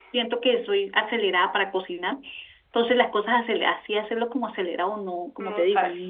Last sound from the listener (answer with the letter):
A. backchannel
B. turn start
A